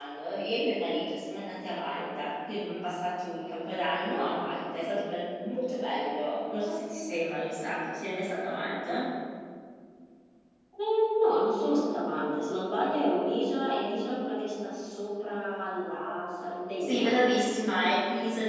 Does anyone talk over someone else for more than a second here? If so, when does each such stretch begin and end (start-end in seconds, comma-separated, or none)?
none